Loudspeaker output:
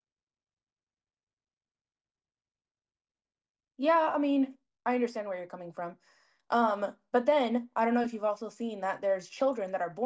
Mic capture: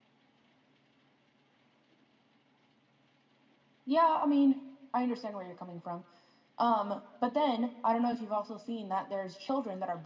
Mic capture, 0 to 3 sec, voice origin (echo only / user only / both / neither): neither